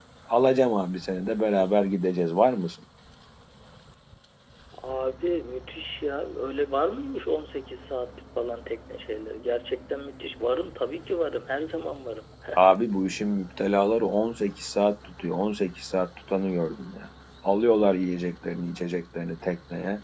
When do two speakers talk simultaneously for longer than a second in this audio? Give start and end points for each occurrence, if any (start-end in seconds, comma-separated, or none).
none